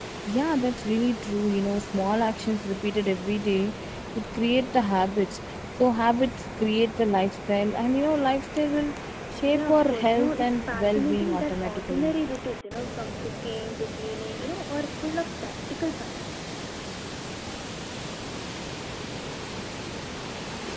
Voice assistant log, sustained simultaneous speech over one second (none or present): present